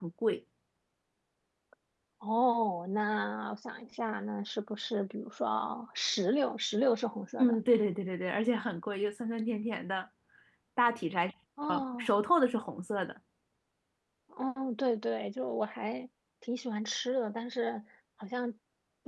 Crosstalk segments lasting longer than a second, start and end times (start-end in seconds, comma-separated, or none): none